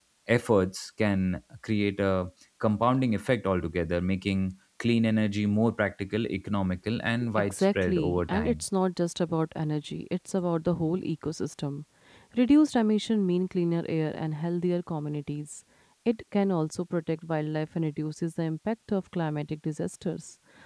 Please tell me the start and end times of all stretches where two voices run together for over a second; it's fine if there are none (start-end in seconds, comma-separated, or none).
7.4-8.6